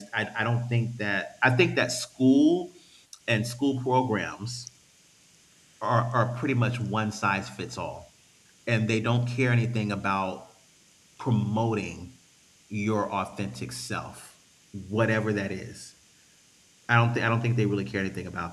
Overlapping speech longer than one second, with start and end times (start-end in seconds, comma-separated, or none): none